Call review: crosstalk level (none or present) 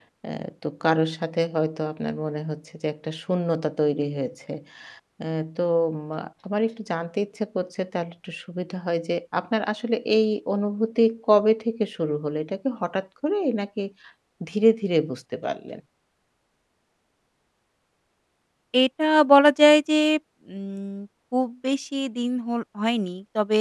none